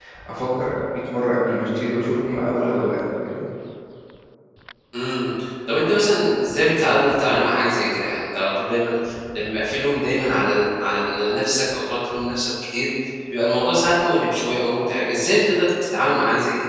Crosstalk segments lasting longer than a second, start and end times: none

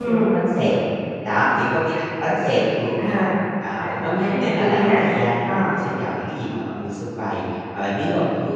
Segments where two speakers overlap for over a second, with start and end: 3.8-5.0

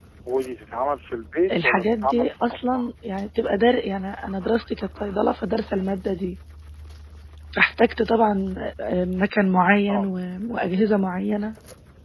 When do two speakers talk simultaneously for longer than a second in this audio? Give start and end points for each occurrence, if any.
1.6-2.9

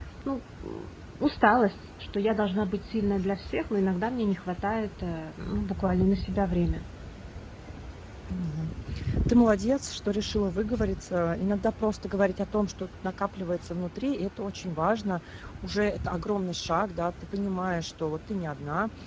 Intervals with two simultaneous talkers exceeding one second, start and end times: none

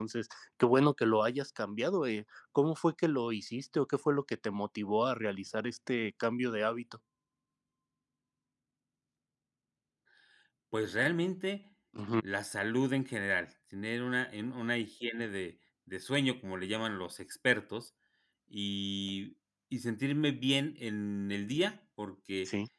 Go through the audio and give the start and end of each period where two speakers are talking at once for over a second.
none

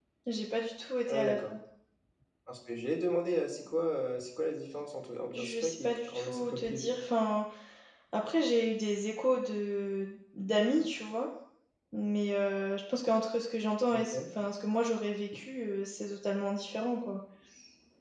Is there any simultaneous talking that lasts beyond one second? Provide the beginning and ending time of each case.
5.3-6.9

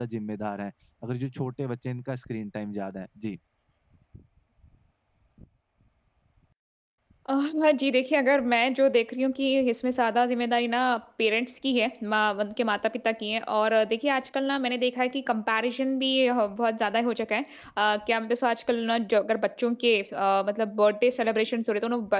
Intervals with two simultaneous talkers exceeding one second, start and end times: none

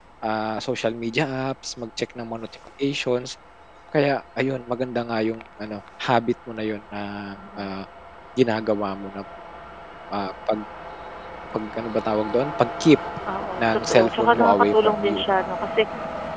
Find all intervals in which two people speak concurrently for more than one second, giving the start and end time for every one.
13.6-15.2

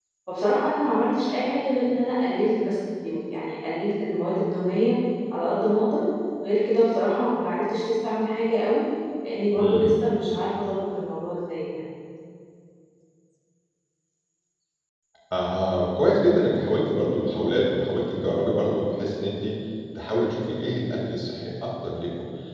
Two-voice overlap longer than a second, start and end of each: none

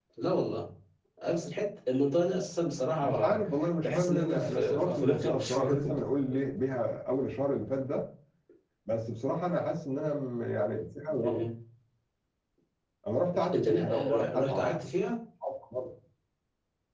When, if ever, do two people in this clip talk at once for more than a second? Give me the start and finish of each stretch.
3.8-5.7, 13.4-14.7

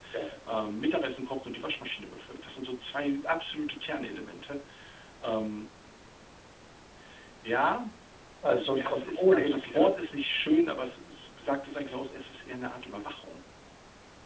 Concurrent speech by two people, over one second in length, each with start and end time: 8.5-9.9

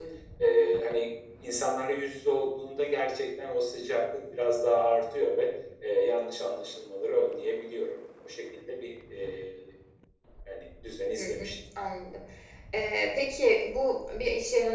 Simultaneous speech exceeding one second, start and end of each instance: none

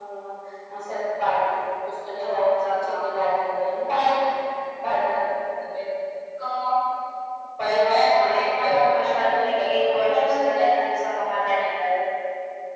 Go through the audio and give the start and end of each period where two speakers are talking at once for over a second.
2.2-3.4, 7.7-10.8

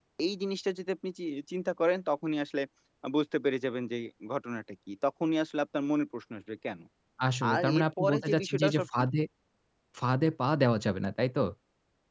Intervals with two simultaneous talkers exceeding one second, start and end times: 7.5-9.1

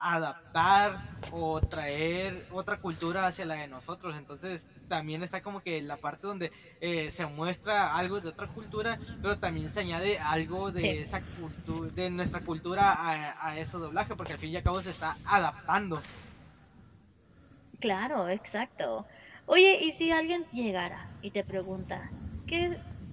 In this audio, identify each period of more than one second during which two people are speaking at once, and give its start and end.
none

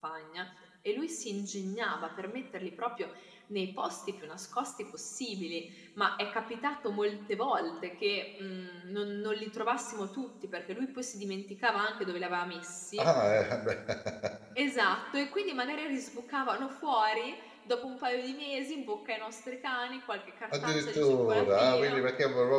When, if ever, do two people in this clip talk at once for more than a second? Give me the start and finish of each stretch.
20.5-22.0

